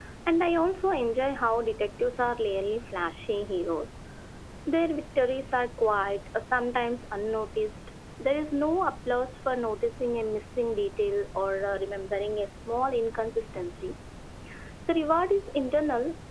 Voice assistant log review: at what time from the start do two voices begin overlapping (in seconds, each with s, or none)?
none